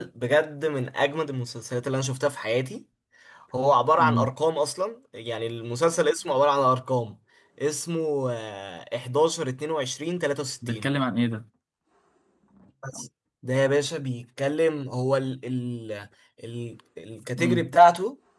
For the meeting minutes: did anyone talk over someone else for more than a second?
No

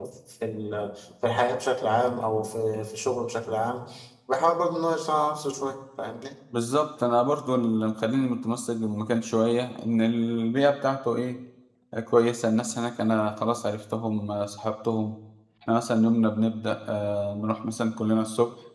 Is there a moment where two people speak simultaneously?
No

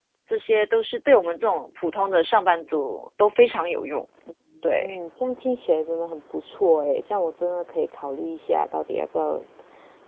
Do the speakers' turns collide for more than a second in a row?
No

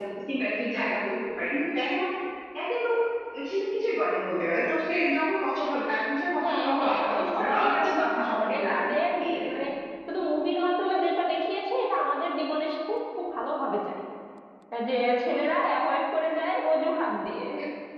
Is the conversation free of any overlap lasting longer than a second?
No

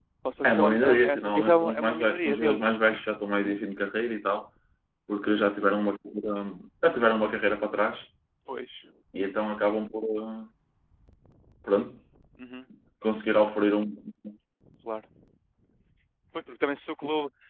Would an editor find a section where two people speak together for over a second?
Yes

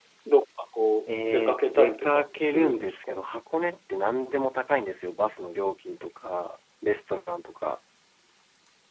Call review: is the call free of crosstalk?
No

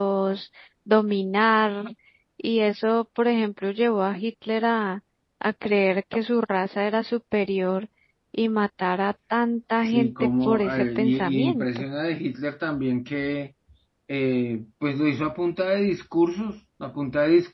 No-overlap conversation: No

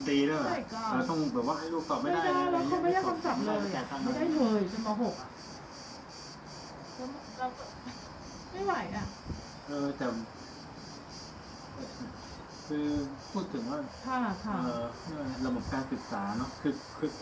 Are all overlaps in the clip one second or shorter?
No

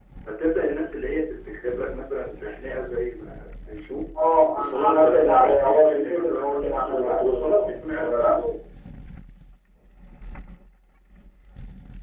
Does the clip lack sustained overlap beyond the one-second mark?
No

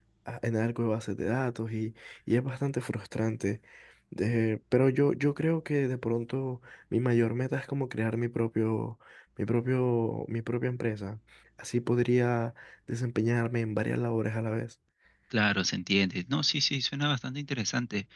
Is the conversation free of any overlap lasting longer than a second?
Yes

